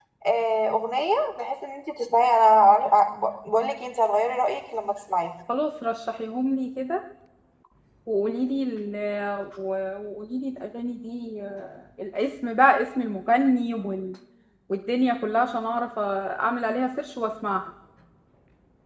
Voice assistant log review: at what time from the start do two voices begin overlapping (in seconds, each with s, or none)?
none